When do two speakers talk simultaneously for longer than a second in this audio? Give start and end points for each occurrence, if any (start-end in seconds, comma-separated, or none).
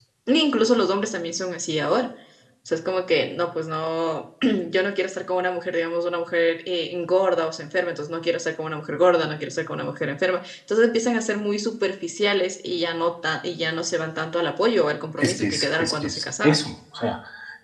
15.2-16.6